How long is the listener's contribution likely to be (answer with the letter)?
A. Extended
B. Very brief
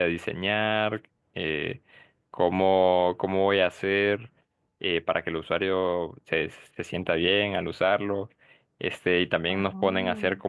B